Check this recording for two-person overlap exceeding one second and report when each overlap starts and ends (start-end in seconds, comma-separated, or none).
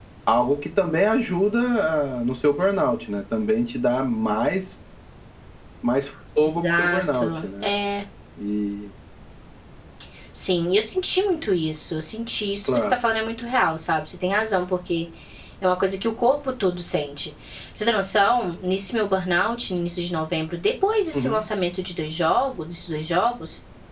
6.4-7.7